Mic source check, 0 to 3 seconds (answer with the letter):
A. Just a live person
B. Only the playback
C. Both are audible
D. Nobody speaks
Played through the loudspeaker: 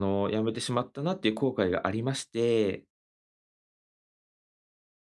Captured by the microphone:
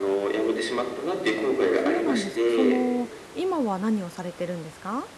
C